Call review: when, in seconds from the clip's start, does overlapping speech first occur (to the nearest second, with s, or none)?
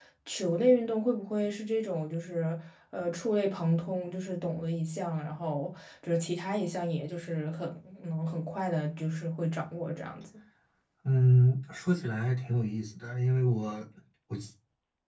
none